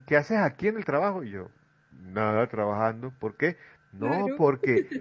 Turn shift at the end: No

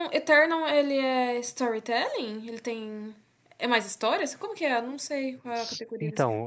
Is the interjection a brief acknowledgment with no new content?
No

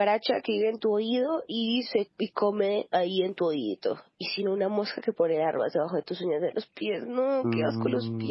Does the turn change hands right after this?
Yes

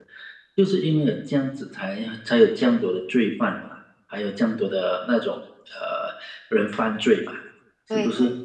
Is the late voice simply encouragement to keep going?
No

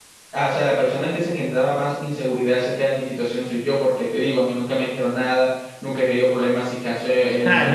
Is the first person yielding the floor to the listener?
Yes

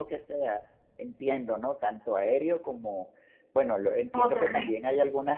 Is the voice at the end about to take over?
No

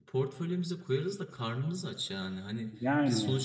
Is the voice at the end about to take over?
No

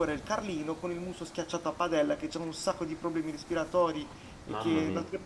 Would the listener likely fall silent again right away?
Yes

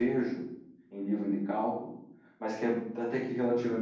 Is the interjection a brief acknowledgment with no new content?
Yes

